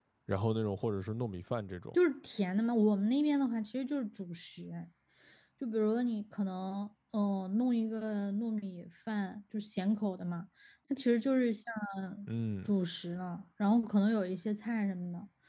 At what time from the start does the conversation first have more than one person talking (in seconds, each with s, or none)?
none